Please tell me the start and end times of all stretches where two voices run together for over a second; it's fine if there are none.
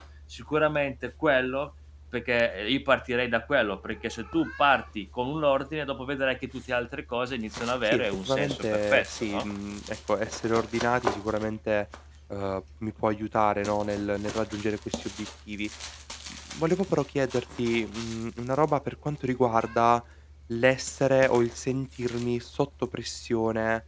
7.8-9.5

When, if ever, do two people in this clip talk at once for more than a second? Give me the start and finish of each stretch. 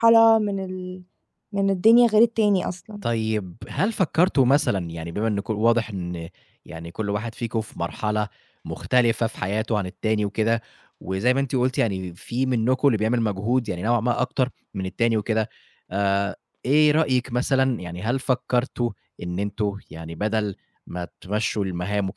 none

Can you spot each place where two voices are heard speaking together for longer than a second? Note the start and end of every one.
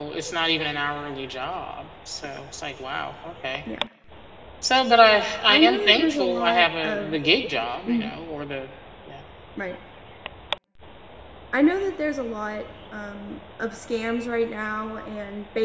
5.5-7.2

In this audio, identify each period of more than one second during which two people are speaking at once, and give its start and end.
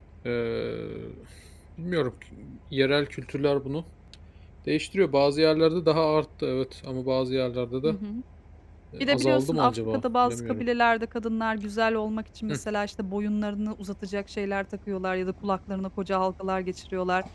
9.0-10.6

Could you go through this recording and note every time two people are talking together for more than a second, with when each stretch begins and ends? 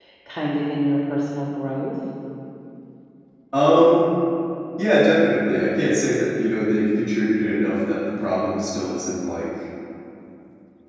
none

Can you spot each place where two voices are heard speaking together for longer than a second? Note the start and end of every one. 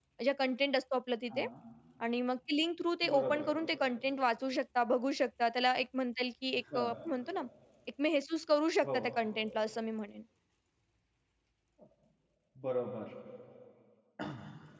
none

